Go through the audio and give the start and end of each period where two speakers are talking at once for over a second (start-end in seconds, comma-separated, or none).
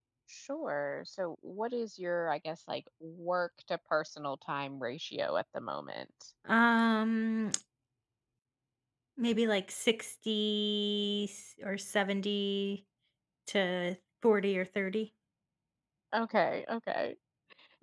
none